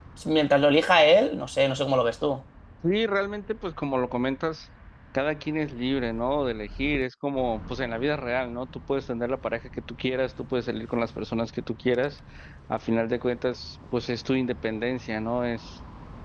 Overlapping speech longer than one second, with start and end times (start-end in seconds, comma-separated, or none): none